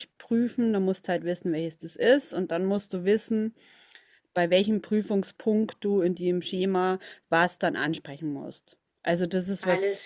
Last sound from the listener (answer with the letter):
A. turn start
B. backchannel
B